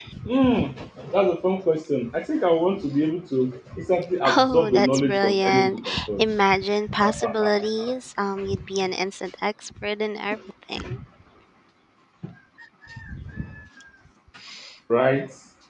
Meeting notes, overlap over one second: present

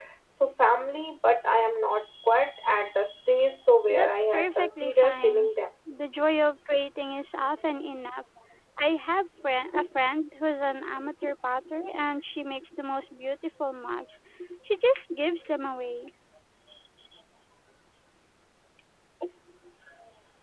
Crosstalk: present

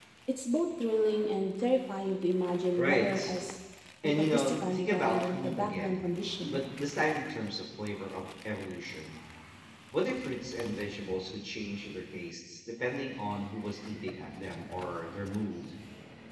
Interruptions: present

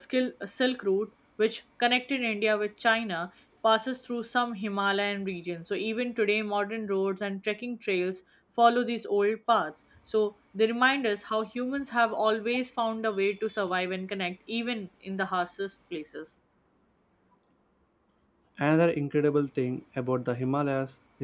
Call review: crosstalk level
none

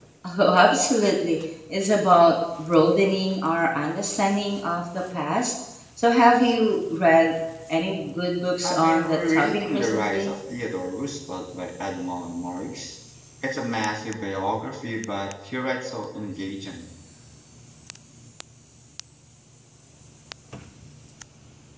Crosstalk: present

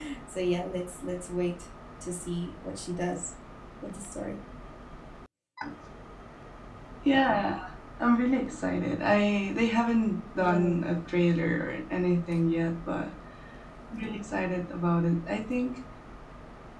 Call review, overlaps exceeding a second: none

